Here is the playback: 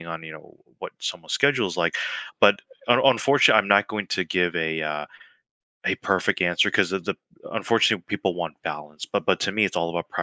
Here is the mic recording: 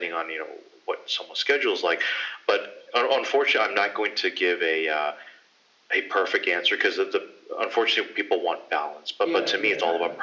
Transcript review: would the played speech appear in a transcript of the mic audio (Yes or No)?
Yes